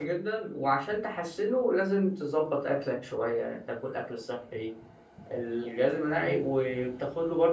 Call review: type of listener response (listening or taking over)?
listening